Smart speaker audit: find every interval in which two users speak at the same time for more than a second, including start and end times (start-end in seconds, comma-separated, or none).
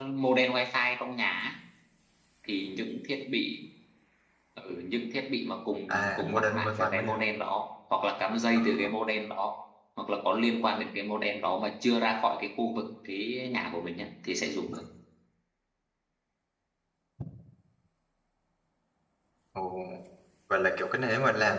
5.9-7.2